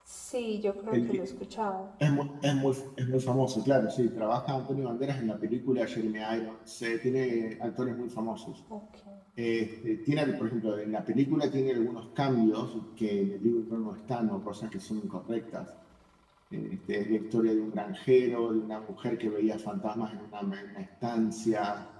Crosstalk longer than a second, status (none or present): none